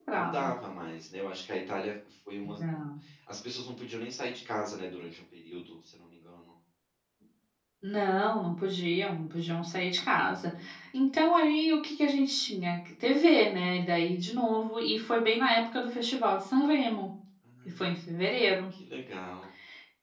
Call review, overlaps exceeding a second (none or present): none